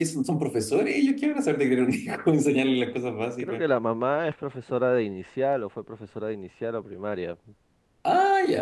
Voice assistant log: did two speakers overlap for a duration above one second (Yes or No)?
No